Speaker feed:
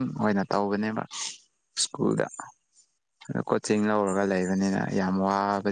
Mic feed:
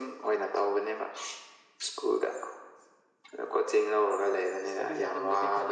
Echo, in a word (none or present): present